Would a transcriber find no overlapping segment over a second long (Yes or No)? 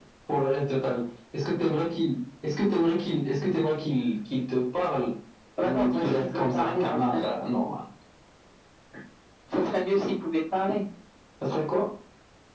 No